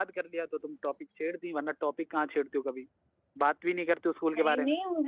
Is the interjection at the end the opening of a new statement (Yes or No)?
Yes